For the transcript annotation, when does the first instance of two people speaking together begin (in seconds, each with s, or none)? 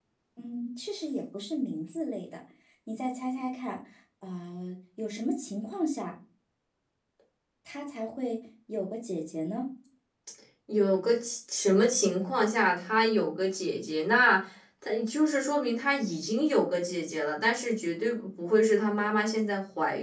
none